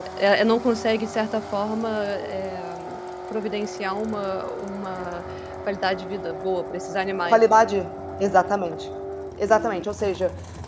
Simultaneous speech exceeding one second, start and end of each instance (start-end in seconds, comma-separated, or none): none